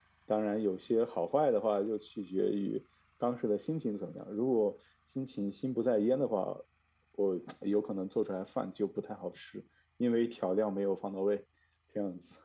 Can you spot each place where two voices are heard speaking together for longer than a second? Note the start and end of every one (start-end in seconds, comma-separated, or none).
none